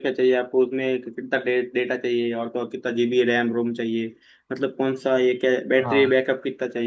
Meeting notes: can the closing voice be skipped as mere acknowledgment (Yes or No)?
Yes